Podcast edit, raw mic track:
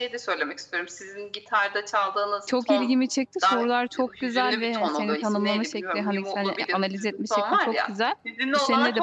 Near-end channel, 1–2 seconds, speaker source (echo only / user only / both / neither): echo only